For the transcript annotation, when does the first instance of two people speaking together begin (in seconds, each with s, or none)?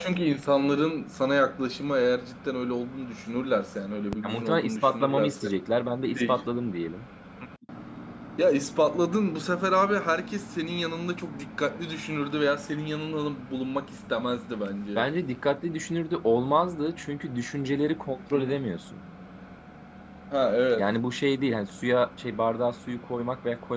4.2 s